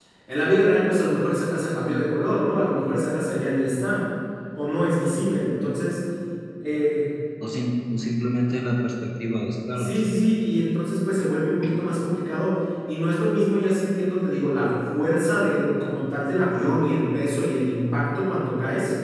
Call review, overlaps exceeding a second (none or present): none